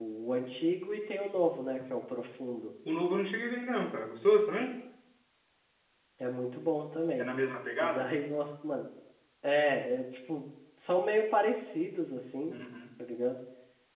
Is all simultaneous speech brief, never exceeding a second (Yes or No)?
Yes